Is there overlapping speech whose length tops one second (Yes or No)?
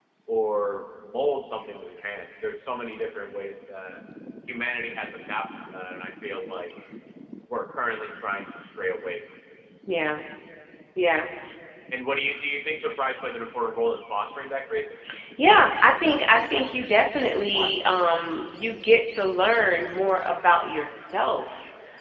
No